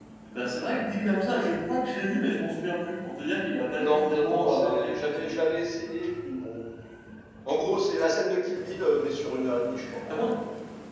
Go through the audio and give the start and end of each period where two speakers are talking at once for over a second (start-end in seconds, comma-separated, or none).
3.8-5.2